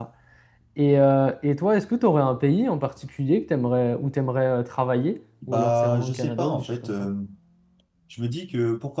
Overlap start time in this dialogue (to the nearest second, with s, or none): 5 s